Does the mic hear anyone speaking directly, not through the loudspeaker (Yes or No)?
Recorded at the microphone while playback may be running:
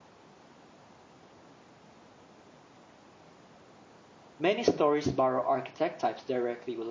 Yes